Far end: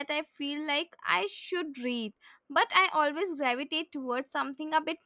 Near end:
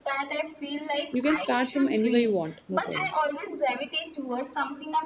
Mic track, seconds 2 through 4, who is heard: both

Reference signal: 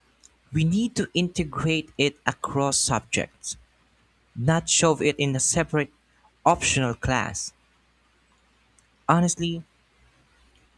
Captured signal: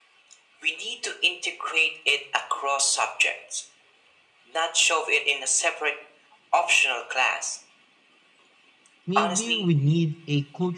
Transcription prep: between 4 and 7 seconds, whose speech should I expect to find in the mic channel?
echo only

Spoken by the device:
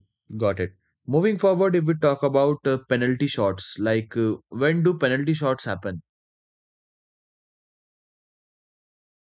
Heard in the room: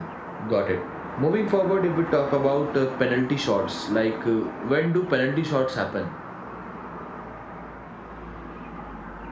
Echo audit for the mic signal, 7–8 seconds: neither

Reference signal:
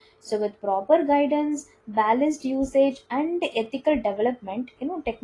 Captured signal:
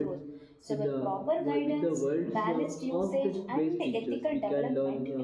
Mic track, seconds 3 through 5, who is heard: both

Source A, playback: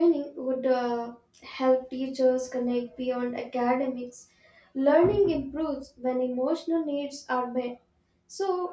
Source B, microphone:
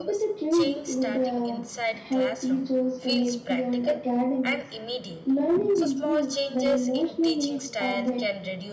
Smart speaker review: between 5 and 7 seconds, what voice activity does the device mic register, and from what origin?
both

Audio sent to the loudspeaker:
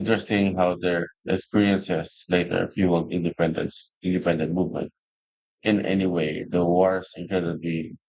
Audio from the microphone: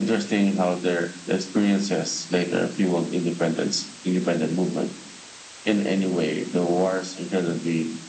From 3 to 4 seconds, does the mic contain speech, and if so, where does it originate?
echo only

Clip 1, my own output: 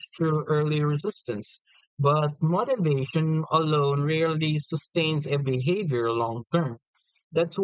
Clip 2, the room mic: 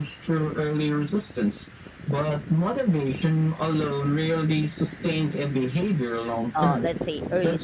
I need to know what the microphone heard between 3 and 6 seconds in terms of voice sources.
echo only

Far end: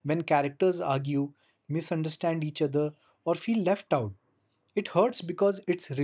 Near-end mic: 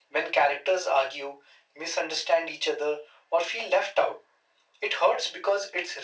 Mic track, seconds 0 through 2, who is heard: echo only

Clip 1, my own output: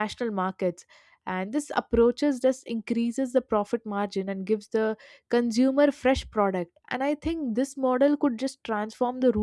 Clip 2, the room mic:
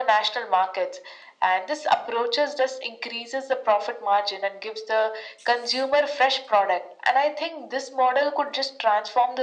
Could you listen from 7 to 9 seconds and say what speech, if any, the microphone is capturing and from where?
echo only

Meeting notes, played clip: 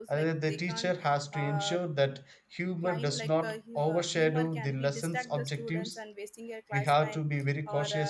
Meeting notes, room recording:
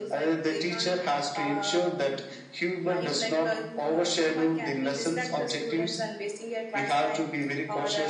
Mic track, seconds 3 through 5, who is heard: echo only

